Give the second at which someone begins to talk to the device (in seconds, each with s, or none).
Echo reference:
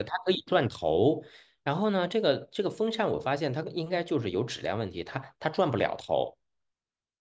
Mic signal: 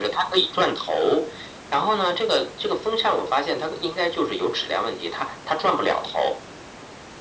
none